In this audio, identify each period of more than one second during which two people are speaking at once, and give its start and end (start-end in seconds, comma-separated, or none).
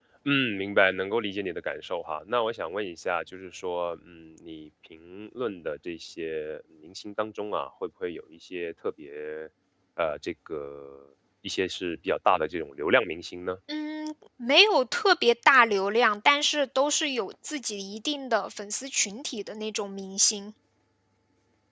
none